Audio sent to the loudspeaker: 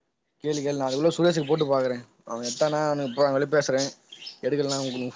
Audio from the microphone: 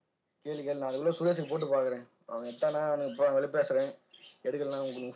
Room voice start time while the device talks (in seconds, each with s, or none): none